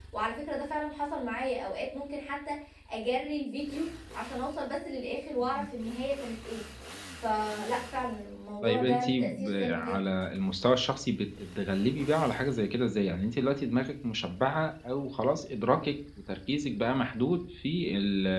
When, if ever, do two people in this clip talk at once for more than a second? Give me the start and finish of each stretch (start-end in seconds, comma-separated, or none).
8.6-10.2